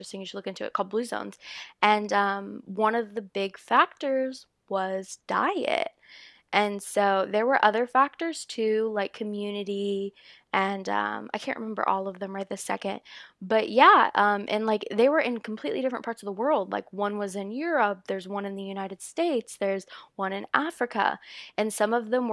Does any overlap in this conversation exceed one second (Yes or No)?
No